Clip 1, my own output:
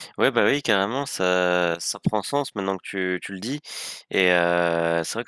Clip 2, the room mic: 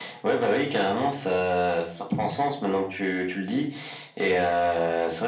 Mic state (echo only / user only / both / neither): echo only